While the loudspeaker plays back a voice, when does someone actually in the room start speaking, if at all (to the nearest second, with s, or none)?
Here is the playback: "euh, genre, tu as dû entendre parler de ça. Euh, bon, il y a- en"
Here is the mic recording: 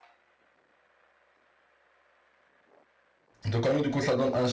3 s